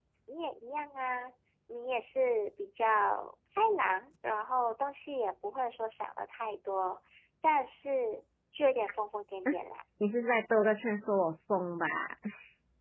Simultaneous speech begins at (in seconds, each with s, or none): none